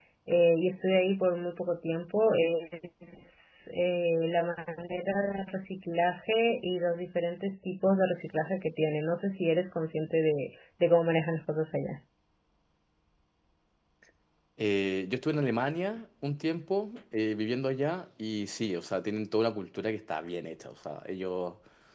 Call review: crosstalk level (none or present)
none